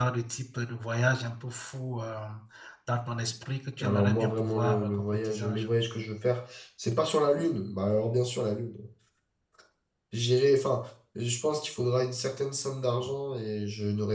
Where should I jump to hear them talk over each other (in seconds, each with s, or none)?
3.8 s